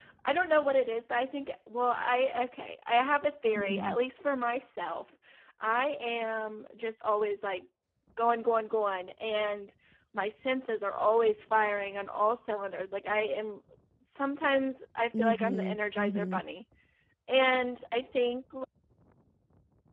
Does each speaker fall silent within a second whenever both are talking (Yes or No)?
No